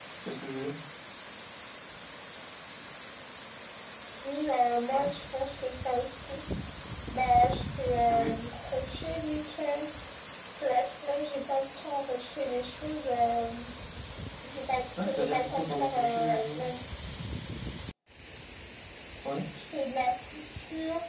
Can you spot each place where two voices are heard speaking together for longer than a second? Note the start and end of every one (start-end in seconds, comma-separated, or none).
15.0-16.6